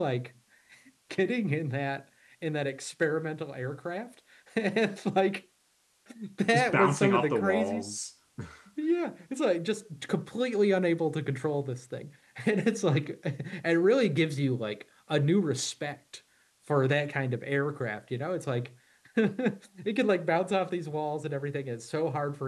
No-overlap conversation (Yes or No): No